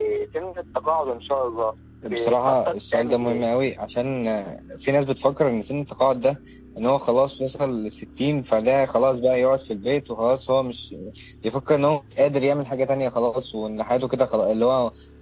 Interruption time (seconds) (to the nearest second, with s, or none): 2 s